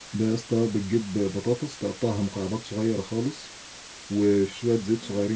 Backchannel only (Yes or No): Yes